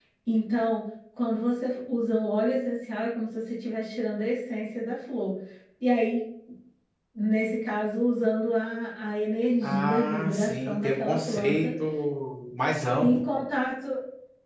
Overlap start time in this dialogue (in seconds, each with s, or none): 9.6 s